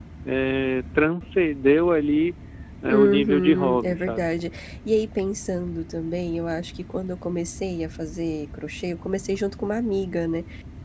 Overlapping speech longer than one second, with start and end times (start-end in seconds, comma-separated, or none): 2.9-4.3